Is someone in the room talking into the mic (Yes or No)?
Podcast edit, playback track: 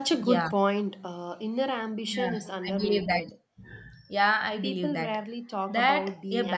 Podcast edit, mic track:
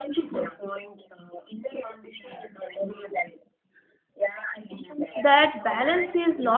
Yes